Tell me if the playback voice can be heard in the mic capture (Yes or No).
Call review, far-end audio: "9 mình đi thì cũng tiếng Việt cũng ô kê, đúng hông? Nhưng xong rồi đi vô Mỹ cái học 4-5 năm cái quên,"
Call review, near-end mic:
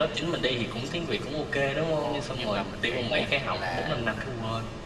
Yes